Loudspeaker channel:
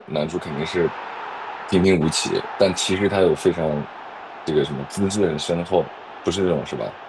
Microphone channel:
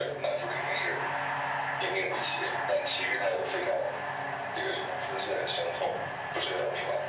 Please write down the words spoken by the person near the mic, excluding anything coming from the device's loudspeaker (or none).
none